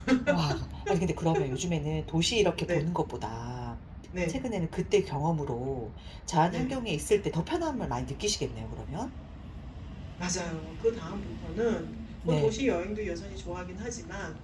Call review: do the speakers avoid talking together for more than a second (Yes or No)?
Yes